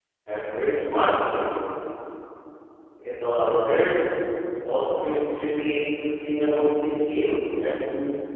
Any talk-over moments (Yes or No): No